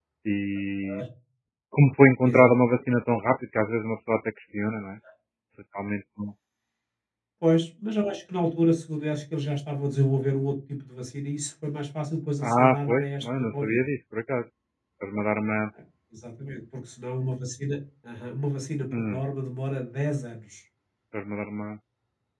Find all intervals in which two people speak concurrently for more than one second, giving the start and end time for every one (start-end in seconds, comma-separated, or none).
12.4-13.8